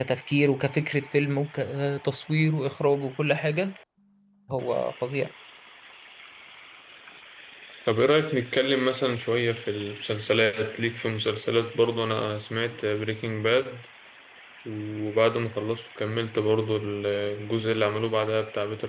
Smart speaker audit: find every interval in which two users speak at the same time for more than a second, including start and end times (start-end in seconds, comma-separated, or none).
none